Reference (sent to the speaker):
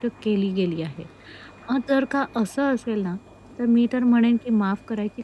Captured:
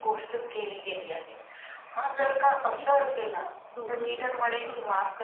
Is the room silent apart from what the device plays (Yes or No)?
No